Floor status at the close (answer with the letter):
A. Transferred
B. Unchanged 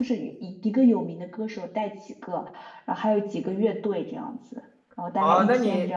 A